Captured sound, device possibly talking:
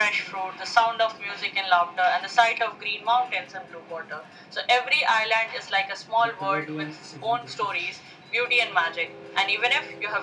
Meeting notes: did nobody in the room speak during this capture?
No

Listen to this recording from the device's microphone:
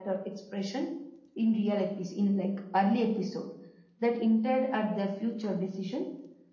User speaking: No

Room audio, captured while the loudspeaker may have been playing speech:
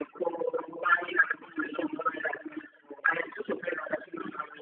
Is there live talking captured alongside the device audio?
No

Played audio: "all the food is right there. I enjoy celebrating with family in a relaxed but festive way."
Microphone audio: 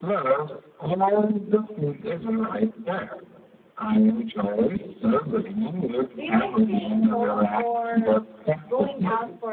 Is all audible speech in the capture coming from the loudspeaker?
No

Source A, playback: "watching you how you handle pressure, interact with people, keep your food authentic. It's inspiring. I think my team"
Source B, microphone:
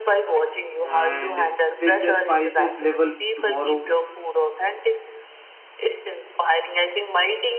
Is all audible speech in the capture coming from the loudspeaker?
No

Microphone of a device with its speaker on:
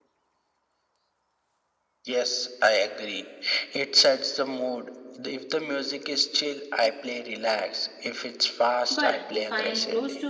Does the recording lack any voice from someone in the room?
No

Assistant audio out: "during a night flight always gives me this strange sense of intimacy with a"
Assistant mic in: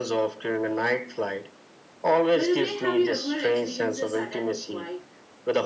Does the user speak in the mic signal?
Yes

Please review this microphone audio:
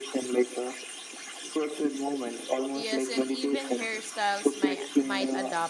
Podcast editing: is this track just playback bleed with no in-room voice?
No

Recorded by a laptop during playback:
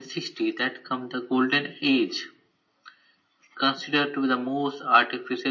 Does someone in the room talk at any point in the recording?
No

